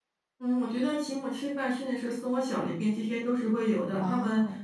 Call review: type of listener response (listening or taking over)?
listening